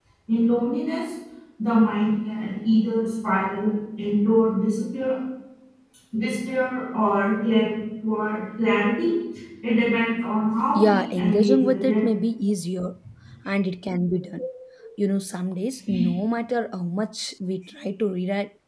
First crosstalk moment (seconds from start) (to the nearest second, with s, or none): 11 s